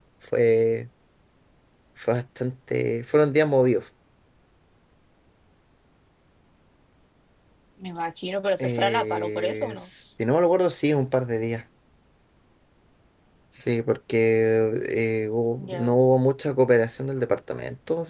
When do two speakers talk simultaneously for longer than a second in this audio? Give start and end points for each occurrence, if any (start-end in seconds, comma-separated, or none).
8.6-9.9